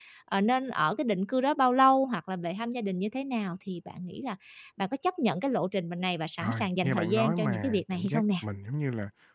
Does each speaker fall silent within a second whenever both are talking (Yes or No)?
No